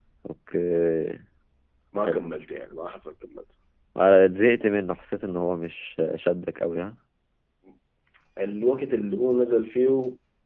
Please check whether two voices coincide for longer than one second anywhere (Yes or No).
No